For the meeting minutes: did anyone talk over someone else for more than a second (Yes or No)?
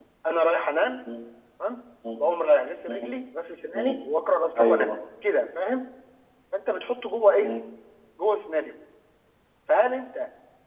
No